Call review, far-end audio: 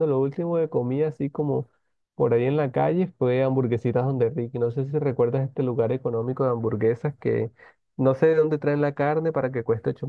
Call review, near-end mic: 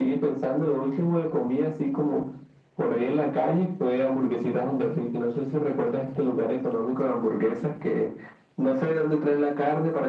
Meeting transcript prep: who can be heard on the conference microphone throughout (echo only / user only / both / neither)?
echo only